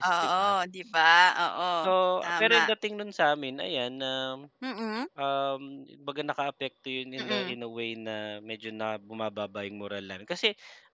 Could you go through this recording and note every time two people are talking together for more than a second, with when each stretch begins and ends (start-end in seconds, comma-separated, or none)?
none